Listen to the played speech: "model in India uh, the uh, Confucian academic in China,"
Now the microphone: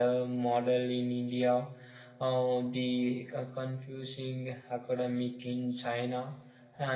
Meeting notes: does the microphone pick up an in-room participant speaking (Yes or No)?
No